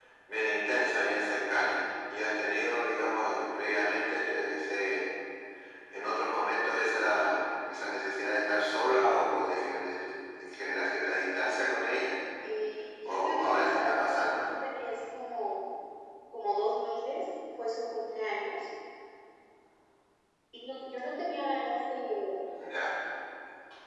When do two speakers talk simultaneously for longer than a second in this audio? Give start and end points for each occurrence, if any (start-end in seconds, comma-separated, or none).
13.0-14.5